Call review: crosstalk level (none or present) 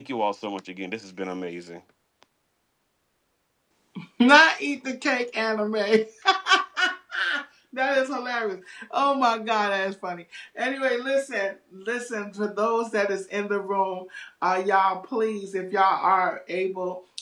none